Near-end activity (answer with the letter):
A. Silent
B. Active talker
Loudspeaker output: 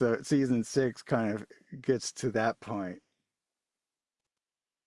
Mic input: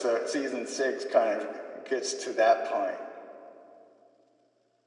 A